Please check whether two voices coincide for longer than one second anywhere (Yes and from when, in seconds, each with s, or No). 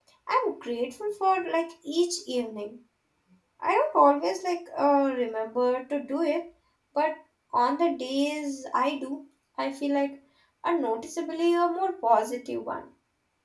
No